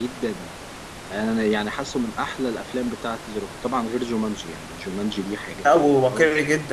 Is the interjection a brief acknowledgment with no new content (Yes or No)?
No